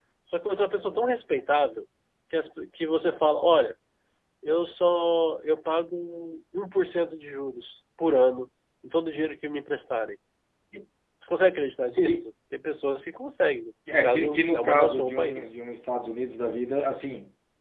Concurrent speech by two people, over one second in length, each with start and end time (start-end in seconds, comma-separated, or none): 13.9-15.6